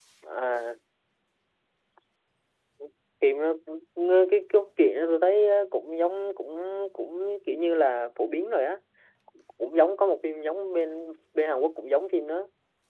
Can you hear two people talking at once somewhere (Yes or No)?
No